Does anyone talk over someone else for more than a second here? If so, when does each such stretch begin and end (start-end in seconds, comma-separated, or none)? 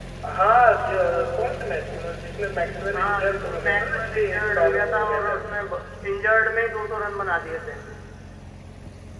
2.9-5.4